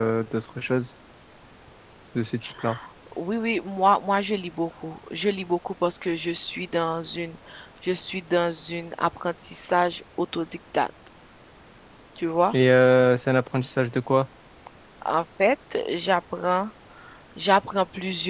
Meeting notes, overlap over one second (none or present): none